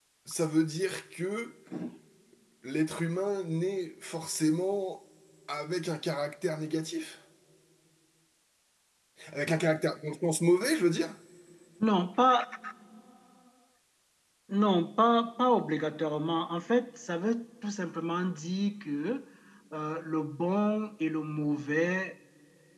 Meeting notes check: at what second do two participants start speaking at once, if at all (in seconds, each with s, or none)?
none